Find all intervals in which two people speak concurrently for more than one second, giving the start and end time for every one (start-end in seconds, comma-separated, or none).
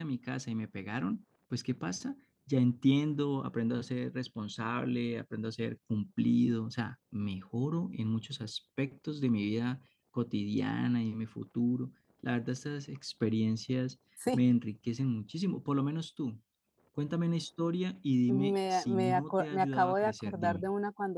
18.3-20.7